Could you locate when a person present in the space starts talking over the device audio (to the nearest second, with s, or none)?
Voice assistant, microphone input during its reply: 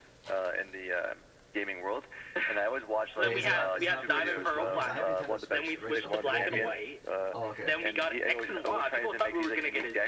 3 s